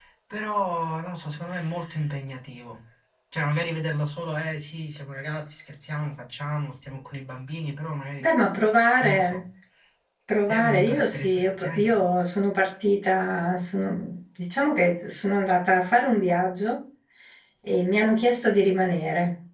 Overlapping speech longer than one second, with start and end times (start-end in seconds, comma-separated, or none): 10.5-12.0